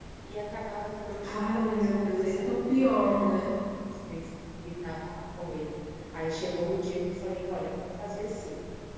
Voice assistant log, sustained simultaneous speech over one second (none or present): present